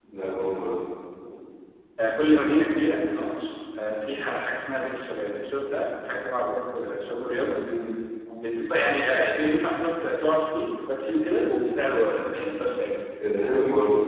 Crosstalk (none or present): none